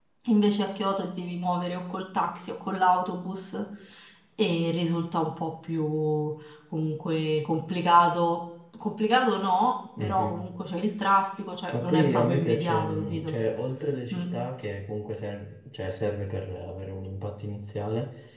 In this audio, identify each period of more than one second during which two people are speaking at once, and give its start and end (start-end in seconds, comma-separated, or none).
11.7-13.4